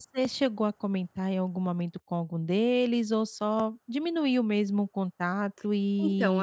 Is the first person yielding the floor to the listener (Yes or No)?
Yes